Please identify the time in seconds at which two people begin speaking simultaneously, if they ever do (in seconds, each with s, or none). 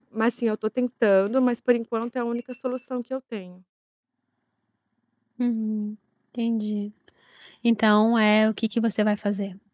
none